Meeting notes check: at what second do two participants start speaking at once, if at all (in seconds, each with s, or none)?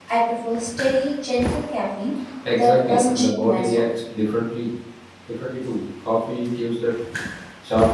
2.4 s